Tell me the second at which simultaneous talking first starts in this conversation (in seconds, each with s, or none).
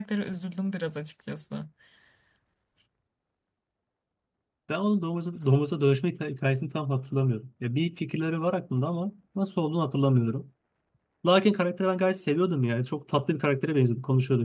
none